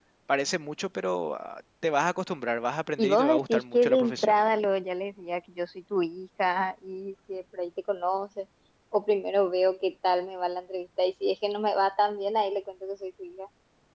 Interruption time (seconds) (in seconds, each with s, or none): 3.0 s